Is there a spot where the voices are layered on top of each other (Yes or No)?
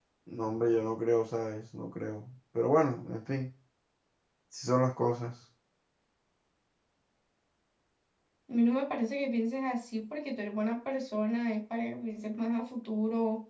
No